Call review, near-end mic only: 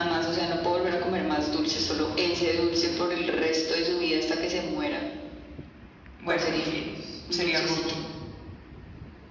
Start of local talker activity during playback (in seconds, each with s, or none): 6.2 s